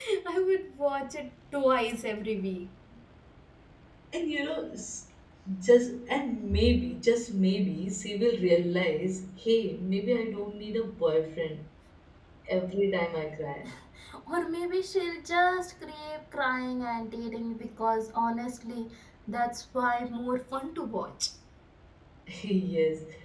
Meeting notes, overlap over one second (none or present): none